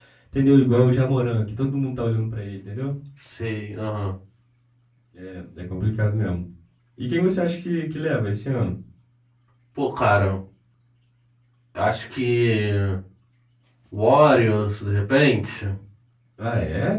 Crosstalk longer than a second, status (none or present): none